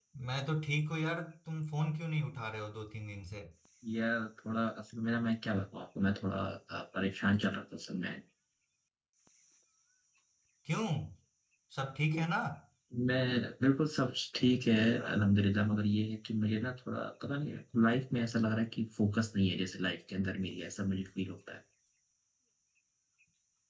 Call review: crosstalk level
none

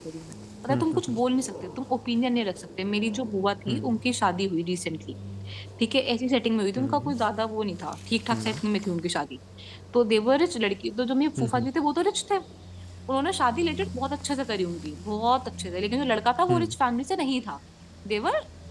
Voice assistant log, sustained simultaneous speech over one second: none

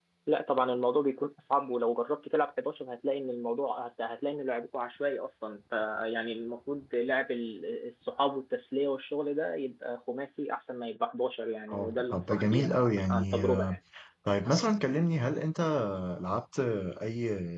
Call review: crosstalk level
present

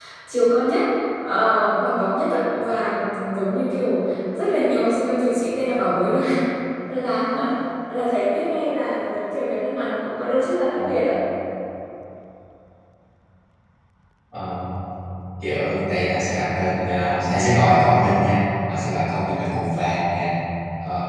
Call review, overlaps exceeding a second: none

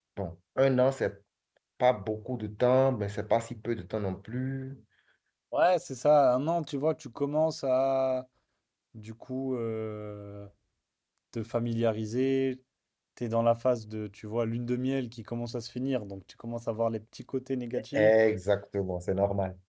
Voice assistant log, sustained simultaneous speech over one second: none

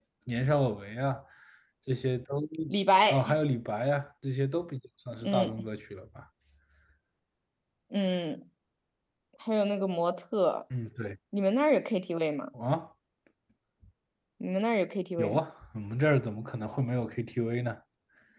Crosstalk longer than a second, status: none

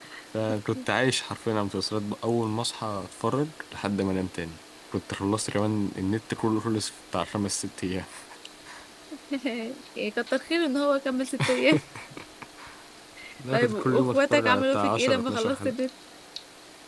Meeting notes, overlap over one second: present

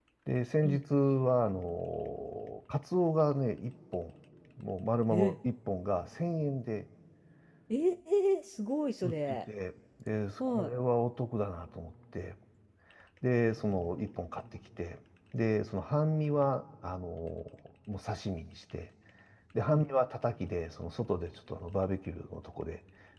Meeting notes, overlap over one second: none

